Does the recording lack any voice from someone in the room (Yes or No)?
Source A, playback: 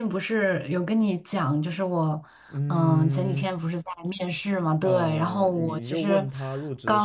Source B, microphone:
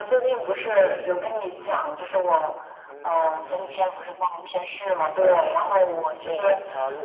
Yes